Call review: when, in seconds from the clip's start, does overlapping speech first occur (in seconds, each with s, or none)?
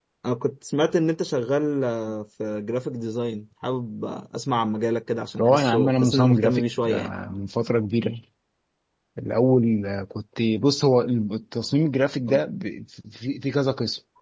5.4 s